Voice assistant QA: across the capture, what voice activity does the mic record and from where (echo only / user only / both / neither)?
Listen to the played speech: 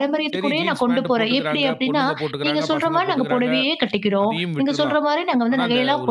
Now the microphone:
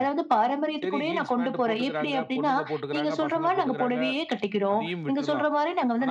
echo only